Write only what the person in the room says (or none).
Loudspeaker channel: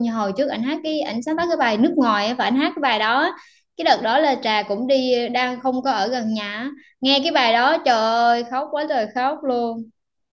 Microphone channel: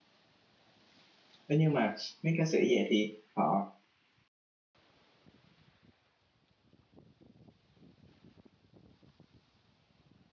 Thế nhưng mà mấy ca sĩ vậy thì họ